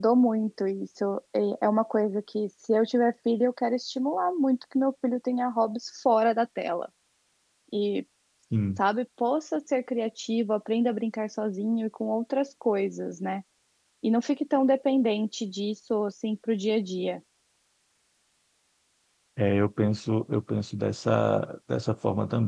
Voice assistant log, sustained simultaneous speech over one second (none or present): none